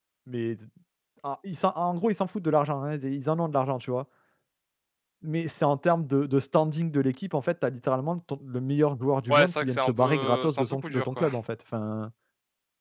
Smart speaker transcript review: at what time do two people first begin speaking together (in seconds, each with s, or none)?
9.3 s